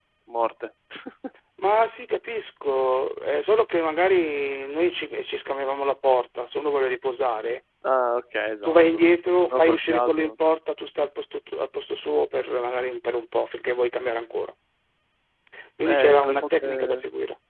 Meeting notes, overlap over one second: present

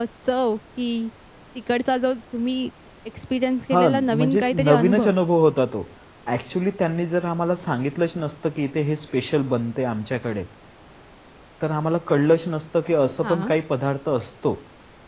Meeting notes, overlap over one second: present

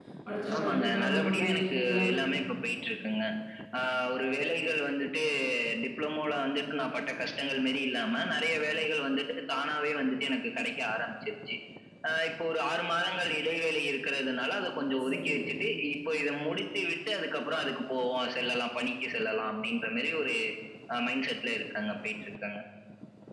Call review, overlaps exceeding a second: present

